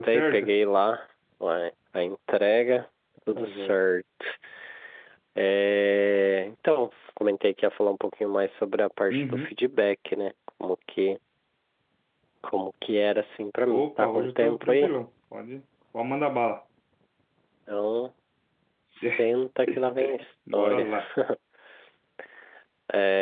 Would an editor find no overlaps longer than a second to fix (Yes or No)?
No